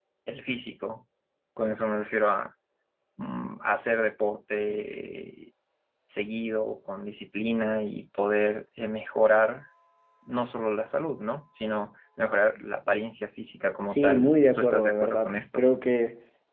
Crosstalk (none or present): present